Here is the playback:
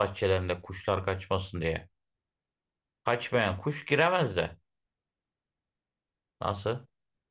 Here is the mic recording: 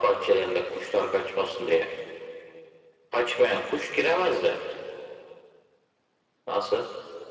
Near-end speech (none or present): none